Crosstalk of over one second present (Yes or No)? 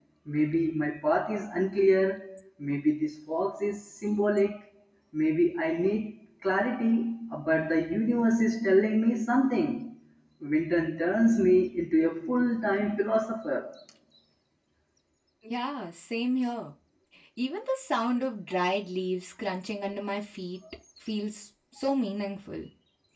No